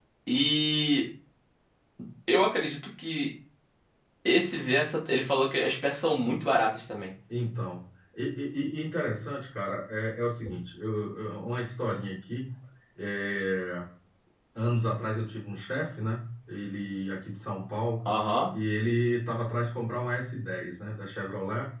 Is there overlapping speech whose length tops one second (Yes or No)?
No